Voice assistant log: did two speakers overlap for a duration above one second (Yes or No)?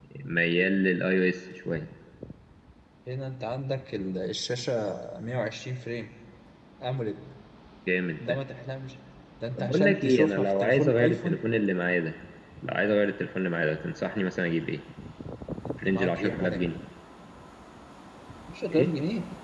Yes